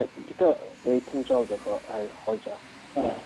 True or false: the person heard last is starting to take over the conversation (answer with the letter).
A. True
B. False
A